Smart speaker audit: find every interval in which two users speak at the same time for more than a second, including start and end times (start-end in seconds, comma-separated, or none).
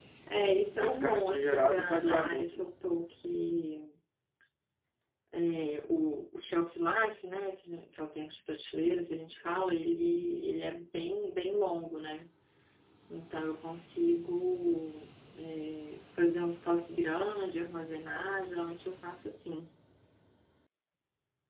0.7-2.7